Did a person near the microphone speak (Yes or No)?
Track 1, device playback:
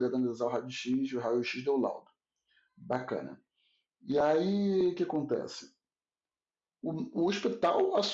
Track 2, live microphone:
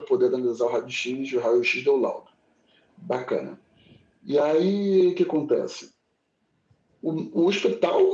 No